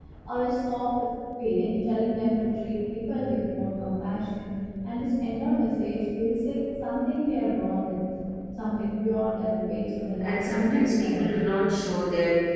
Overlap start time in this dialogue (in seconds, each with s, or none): 10.2 s